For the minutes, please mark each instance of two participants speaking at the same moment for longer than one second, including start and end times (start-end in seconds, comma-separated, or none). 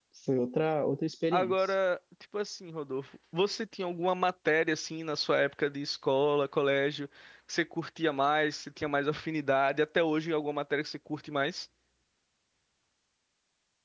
none